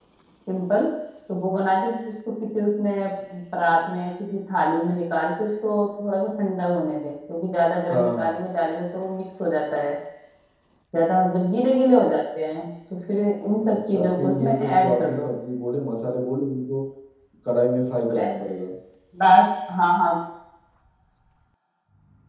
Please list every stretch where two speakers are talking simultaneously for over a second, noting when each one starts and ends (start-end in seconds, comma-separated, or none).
13.6-15.3